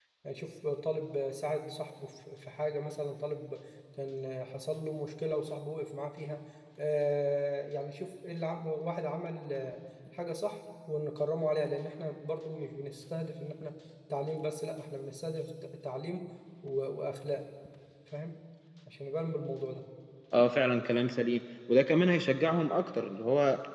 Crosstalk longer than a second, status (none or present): none